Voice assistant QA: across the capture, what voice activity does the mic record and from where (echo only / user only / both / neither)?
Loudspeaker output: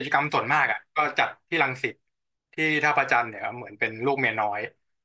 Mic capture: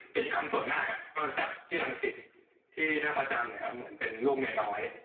echo only